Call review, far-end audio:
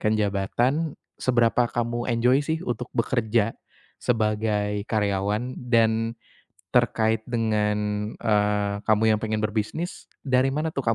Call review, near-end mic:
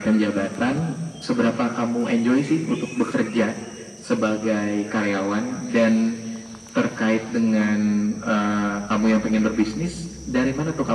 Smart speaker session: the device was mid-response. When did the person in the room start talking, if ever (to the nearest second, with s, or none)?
none